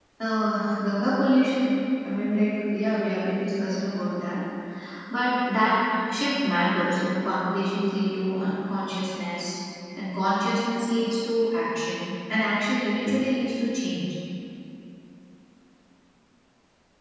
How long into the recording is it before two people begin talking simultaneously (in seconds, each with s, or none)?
none